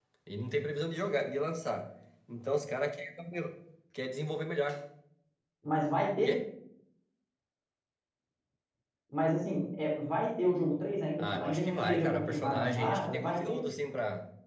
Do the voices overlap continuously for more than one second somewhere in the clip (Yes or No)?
Yes